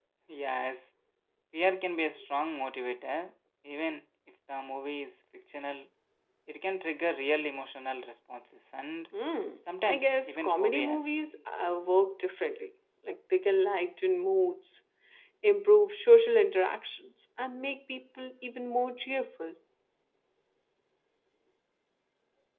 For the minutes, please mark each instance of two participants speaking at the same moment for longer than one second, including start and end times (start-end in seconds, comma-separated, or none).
9.8-11.2